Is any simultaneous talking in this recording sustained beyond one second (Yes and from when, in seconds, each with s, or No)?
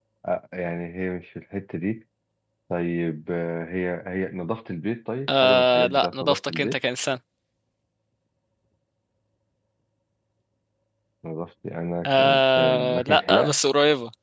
Yes, from 5.3 s